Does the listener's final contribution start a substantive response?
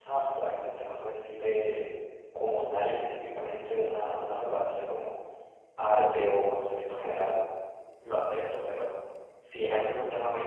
No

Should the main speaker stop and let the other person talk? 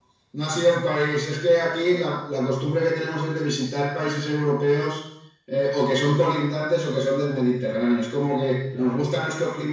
No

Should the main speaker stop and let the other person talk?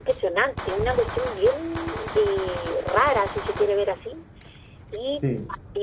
No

